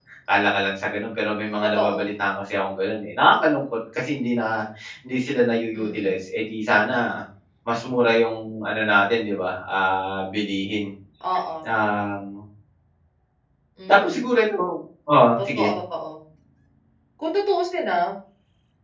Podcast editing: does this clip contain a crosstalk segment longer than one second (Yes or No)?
No